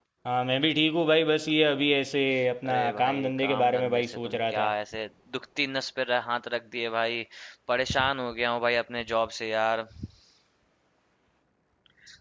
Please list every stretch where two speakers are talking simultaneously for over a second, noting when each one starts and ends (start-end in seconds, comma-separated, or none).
2.7-4.7